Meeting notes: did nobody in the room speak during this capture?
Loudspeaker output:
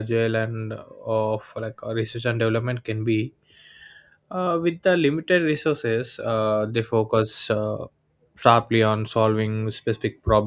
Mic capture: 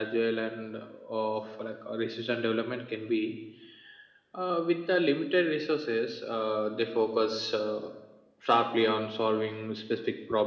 Yes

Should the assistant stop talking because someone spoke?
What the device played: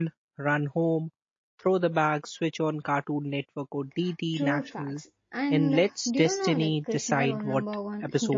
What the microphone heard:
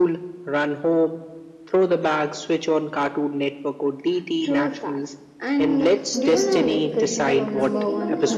Yes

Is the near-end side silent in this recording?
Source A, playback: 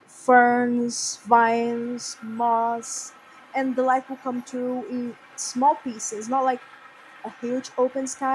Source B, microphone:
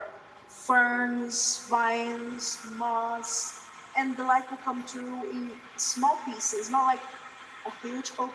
Yes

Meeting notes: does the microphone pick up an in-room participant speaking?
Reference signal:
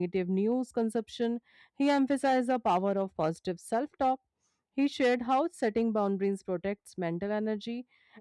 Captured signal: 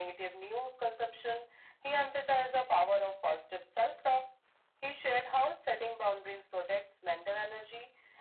No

